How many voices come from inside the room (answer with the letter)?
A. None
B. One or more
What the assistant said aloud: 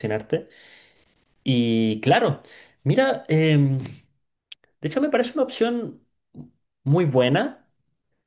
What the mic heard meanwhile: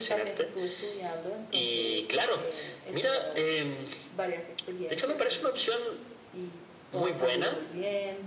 B